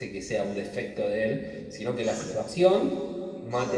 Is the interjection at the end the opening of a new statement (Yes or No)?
No